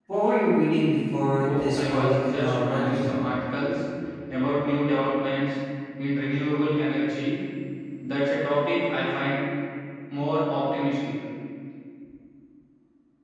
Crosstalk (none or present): present